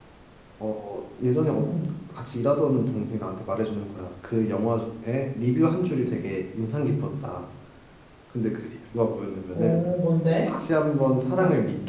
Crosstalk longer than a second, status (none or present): none